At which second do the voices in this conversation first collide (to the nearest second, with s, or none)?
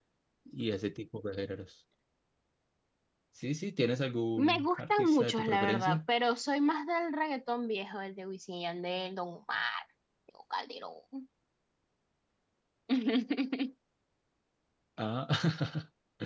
4 s